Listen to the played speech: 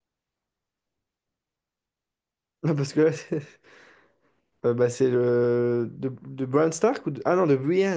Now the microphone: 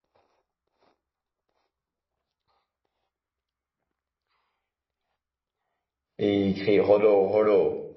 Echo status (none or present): none